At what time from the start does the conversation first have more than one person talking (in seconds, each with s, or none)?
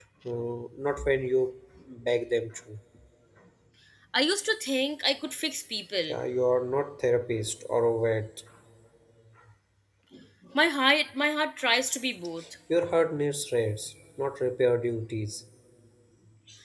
none